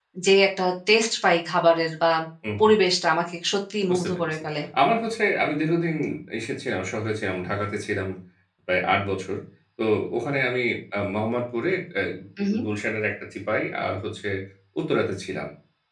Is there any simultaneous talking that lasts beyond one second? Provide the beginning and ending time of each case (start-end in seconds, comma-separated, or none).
none